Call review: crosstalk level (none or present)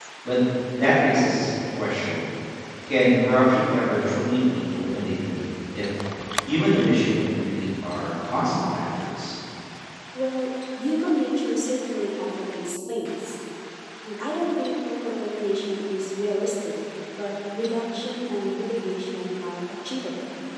none